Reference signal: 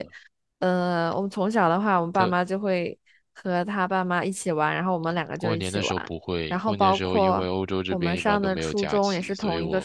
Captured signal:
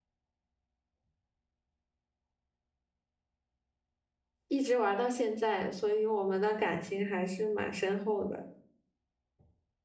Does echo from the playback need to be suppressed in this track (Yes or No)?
No